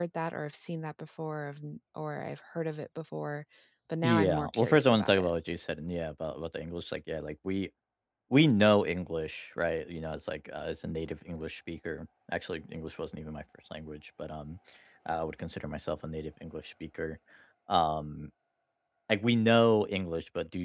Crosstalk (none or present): present